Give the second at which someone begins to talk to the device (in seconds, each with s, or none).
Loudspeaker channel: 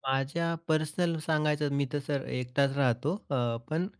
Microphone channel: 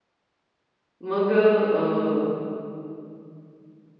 1.0 s